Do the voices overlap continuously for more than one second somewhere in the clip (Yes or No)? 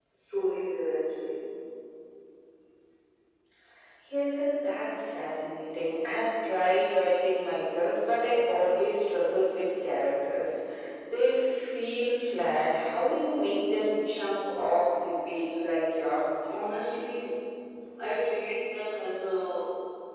No